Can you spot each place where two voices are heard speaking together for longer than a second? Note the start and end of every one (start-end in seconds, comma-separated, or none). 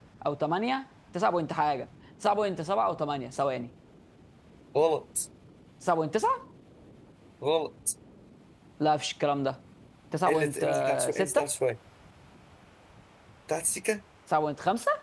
10.3-11.5